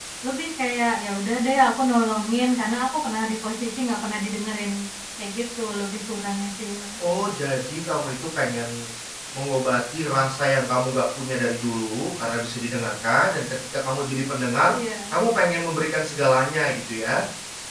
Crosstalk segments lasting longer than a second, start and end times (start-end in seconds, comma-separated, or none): none